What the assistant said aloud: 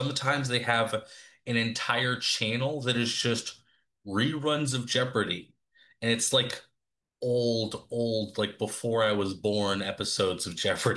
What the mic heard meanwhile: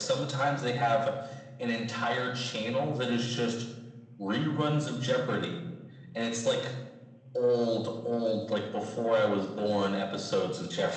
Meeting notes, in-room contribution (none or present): none